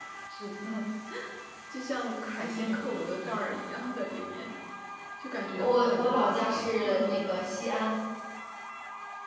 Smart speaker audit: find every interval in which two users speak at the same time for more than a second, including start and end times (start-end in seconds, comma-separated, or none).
5.6-7.4